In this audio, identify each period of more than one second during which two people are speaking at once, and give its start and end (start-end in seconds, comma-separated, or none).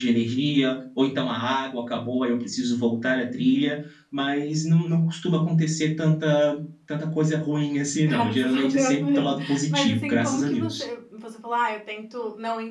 8.1-10.8